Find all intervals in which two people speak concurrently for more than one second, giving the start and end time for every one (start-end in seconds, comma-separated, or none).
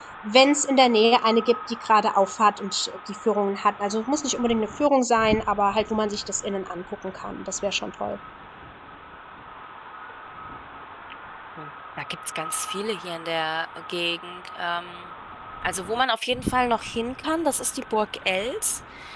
none